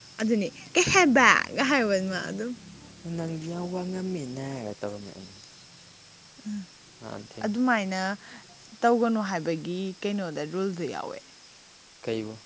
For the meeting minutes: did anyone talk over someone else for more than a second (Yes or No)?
No